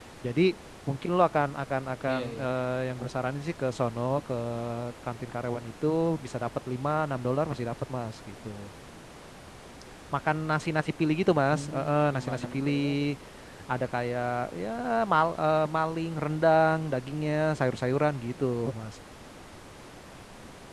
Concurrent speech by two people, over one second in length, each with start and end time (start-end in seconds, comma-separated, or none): 11.5-12.9